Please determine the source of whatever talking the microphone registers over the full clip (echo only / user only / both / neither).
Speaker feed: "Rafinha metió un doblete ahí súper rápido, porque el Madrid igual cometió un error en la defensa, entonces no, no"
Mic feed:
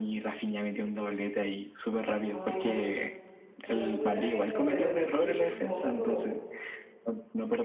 both